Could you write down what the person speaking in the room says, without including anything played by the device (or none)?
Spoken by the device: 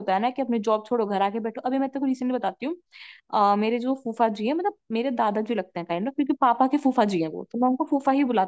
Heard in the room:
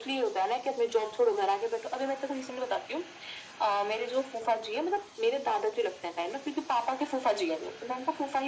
none